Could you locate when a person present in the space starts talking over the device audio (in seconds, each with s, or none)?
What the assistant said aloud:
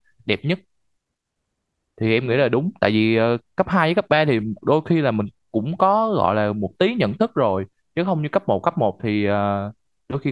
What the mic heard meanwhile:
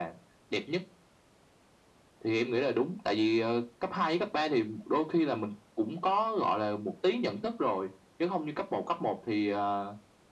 none